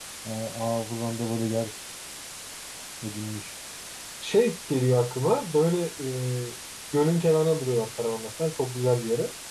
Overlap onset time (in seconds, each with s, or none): none